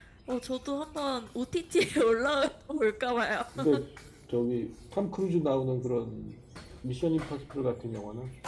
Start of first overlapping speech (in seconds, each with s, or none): none